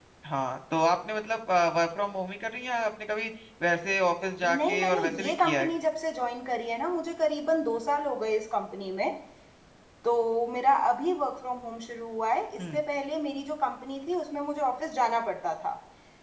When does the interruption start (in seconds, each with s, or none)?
4.4 s